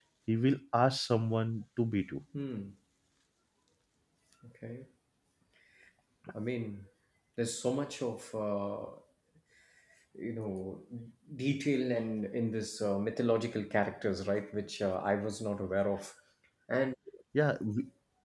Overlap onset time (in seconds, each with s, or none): none